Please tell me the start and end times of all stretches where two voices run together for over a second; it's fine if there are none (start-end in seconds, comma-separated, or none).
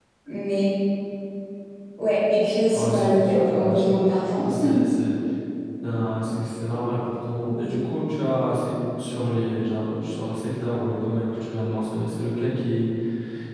2.7-4.0